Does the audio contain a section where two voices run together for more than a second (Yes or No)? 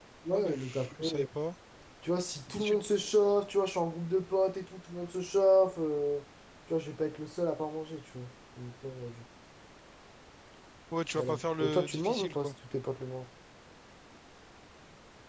Yes